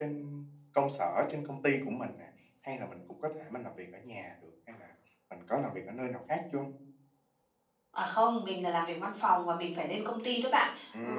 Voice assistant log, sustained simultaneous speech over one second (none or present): none